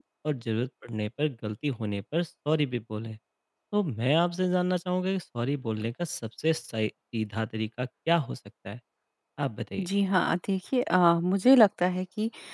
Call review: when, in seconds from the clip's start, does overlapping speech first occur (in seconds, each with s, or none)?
none